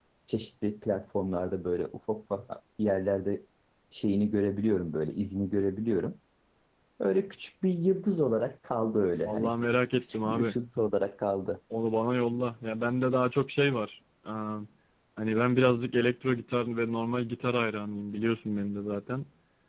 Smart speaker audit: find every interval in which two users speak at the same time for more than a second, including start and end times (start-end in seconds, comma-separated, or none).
none